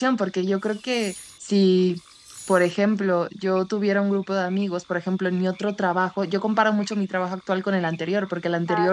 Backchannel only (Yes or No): Yes